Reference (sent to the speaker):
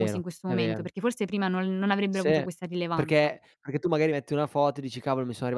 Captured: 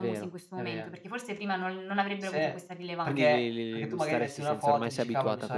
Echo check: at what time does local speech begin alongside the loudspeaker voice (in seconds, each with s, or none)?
3.0 s